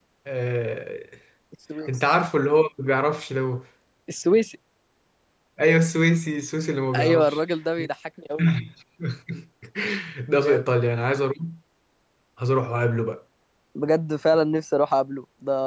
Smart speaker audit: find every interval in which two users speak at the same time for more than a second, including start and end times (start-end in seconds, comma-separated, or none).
none